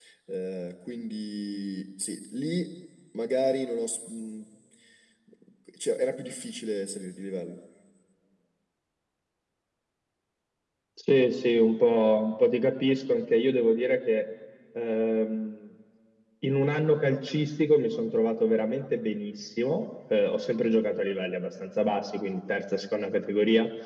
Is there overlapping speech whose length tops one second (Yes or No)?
No